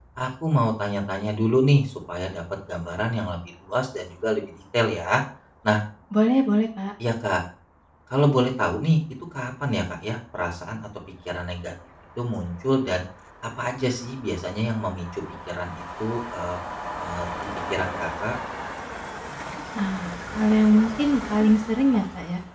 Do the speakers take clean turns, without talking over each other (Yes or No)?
Yes